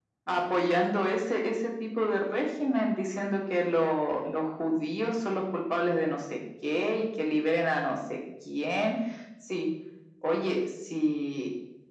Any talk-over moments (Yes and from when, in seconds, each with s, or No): No